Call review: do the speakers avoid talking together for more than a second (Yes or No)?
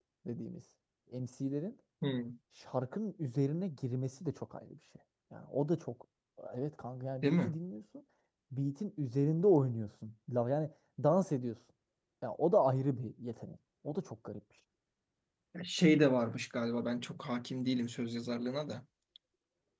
Yes